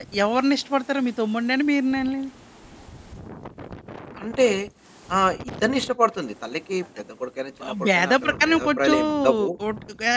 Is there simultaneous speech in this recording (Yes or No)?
Yes